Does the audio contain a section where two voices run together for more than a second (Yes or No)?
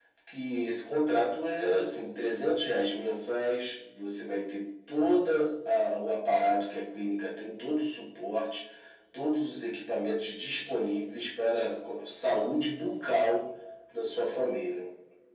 No